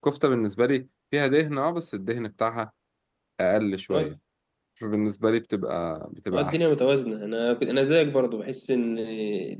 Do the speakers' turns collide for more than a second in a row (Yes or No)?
No